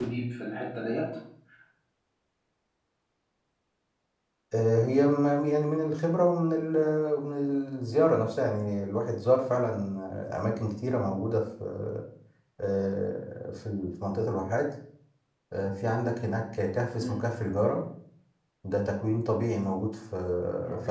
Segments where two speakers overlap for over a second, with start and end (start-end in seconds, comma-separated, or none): none